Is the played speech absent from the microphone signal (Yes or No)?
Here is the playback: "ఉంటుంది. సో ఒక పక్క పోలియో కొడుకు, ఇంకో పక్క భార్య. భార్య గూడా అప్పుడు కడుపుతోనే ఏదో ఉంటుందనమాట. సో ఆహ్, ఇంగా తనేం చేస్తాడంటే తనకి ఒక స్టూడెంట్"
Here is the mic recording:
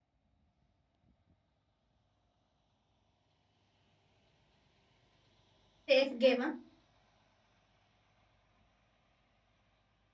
Yes